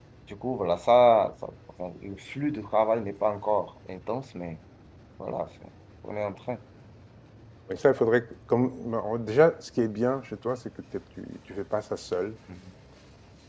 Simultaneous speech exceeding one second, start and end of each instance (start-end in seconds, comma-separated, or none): none